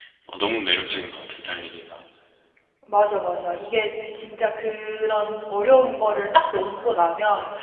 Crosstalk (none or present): none